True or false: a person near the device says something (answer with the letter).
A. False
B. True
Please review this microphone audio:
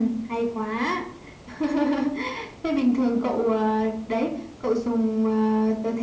A